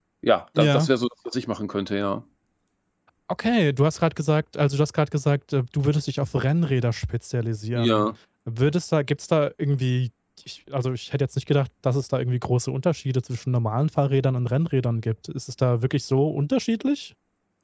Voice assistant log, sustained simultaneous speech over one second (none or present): none